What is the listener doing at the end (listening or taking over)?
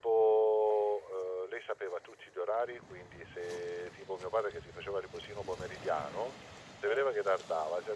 listening